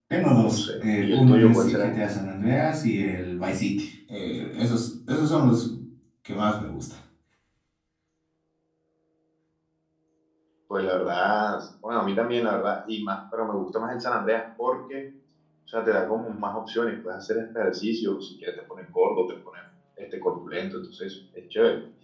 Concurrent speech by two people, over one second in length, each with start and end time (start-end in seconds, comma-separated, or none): 0.5-1.9